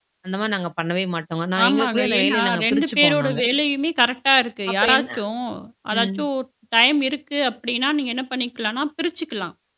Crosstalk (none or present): present